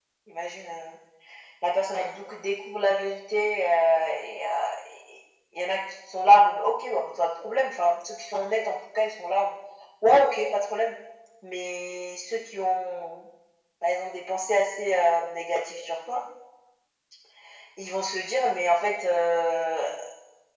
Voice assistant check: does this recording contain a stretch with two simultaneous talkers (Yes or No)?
No